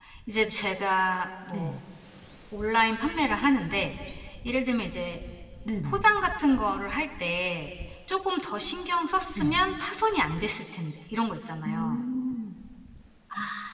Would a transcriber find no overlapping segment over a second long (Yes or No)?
Yes